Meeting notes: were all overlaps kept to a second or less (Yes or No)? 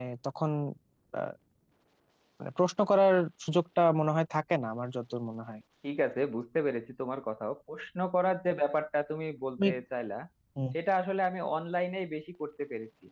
Yes